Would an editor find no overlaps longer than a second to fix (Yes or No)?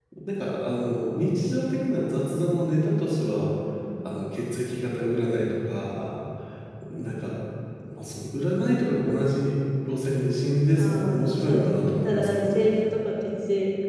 No